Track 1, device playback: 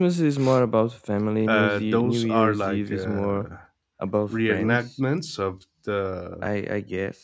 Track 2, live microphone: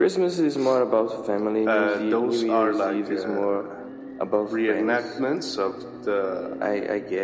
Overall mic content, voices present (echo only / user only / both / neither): echo only